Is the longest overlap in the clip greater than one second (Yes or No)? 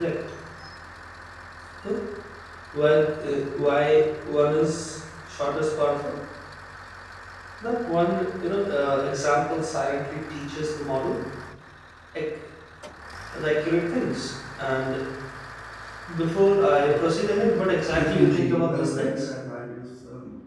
Yes